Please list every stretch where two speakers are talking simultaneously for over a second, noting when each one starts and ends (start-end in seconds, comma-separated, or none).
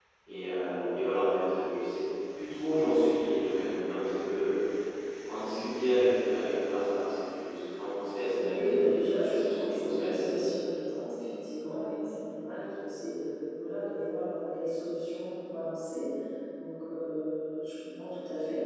8.4-10.4